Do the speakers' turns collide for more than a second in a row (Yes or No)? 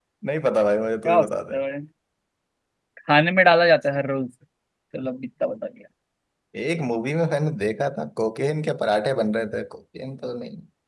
No